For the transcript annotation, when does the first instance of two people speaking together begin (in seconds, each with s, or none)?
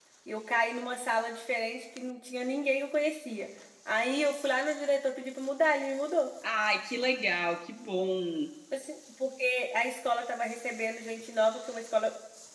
none